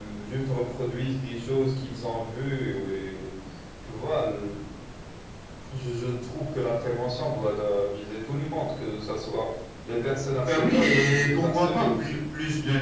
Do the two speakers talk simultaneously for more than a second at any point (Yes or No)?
Yes